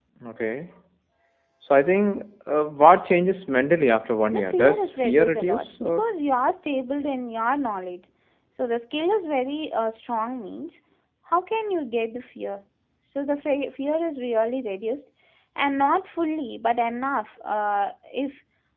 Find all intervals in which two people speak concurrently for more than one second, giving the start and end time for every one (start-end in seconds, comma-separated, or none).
4.3-6.0